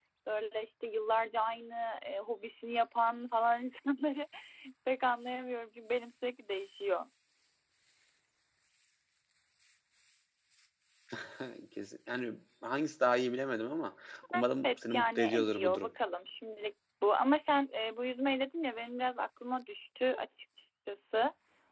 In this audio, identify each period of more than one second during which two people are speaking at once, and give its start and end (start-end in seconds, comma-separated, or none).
14.6-15.9